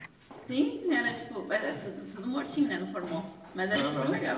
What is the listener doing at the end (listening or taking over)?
taking over